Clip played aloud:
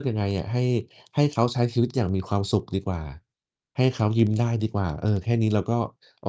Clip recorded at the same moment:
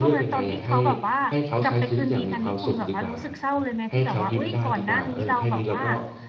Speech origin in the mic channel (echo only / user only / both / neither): both